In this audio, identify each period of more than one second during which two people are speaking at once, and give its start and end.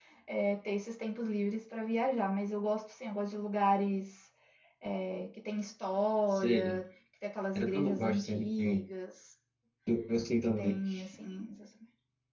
7.5-8.8

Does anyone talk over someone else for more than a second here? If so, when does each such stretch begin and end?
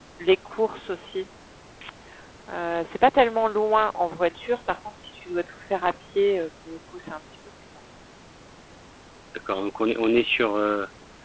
none

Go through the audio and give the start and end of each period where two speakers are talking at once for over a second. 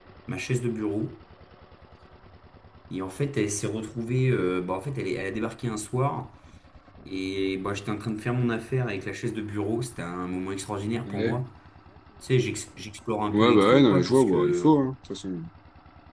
13.3-14.7

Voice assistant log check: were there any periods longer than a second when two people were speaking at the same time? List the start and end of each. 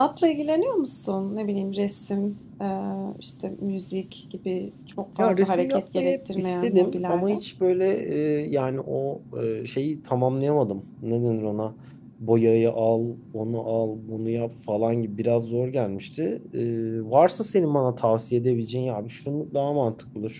5.2-7.3

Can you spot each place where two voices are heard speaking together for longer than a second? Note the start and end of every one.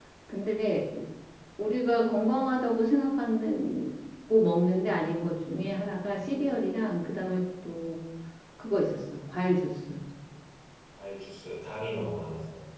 none

